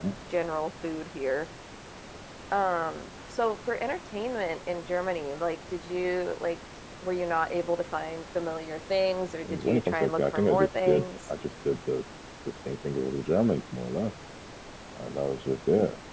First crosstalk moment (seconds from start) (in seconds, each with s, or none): 9.4 s